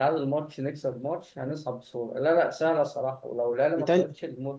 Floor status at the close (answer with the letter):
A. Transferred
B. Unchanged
B